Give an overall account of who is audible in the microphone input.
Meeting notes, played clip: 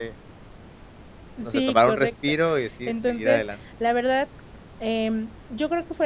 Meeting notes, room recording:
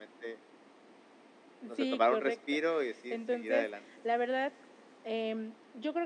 echo only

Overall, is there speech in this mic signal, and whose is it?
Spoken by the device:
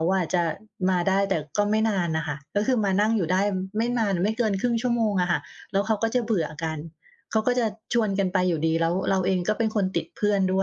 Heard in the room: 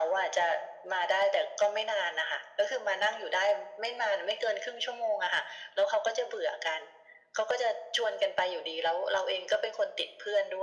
echo only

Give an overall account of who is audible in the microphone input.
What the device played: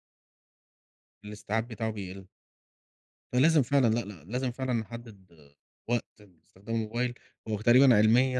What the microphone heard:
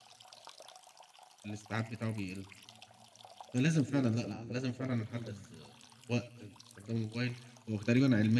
both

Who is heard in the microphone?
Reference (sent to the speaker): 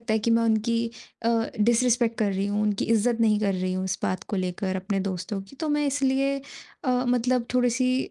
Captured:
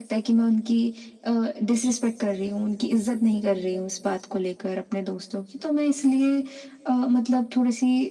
echo only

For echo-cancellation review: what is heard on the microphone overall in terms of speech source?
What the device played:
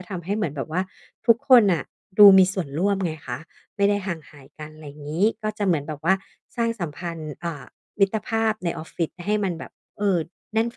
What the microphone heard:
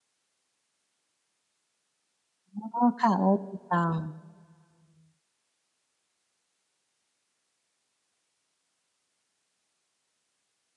user only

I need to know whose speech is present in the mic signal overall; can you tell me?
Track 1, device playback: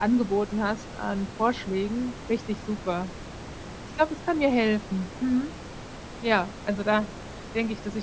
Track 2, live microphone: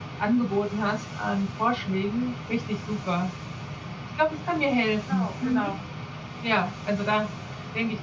both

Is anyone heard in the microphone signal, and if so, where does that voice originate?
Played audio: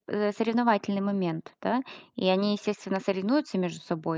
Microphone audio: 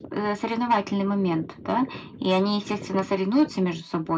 echo only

